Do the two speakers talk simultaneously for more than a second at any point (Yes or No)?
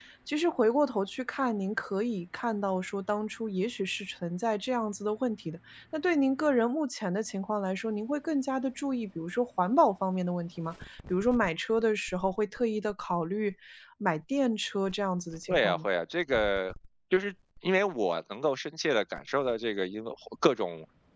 No